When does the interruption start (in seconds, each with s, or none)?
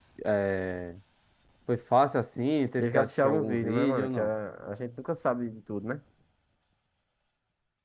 2.8 s